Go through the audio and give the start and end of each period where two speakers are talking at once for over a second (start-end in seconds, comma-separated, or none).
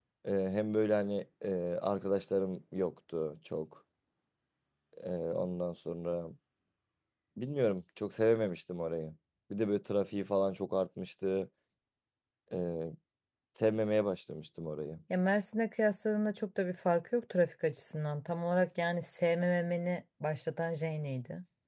none